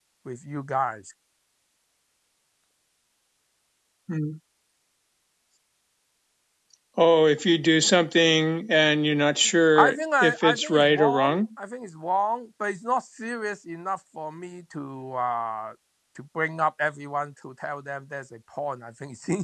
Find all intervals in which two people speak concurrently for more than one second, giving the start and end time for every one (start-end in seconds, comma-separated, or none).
9.8-11.4